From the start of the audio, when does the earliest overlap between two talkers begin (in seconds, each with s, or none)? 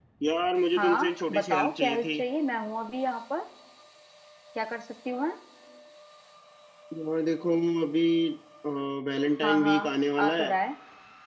0.8 s